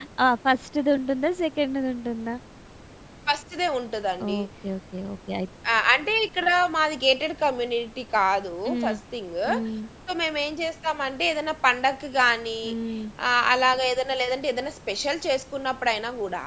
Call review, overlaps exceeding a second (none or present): none